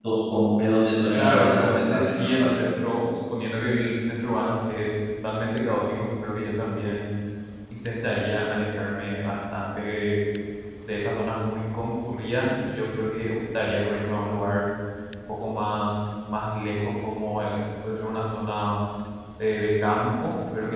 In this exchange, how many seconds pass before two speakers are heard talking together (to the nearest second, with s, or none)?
1 s